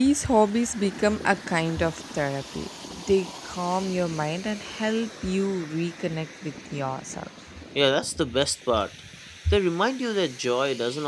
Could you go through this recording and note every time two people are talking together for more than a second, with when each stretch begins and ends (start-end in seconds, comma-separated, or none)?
none